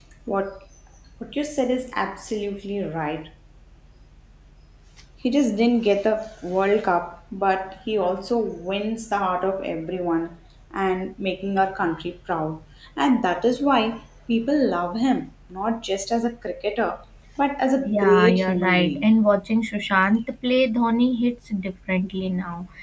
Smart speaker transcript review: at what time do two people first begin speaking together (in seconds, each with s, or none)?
17.9 s